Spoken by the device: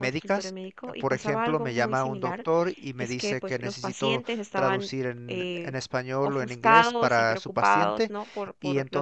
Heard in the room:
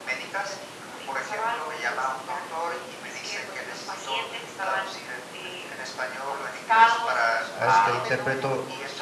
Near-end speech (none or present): present